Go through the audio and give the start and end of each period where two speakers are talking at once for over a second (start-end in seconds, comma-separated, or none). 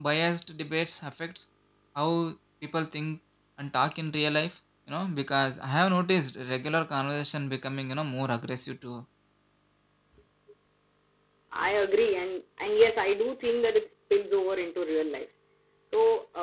none